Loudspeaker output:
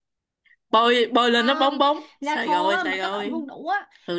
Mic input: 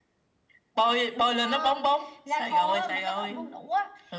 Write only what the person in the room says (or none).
none